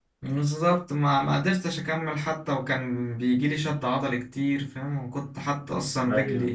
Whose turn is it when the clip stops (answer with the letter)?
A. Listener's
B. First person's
B